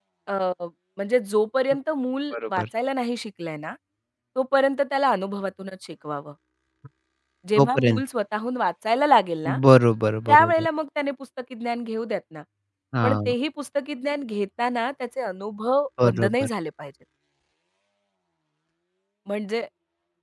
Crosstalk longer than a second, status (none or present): none